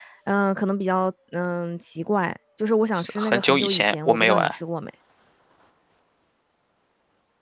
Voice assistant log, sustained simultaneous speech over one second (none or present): present